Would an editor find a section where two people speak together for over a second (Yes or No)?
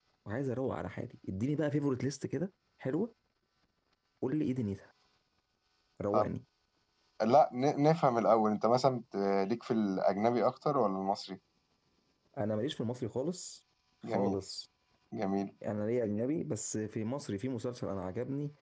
No